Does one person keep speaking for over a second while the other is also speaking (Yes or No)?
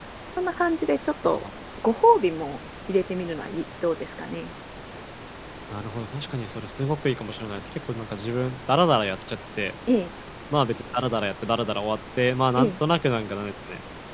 No